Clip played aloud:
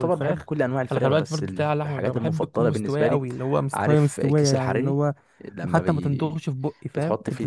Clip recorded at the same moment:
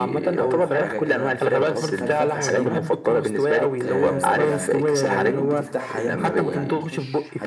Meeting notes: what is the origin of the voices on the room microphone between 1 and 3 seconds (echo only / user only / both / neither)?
both